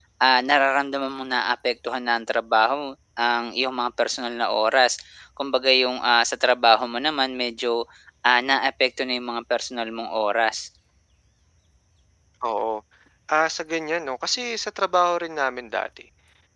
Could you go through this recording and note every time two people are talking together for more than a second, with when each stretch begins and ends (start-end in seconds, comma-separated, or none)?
none